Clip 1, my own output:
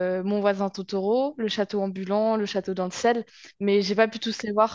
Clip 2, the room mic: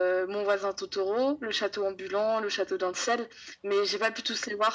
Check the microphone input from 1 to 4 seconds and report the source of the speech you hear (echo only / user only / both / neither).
echo only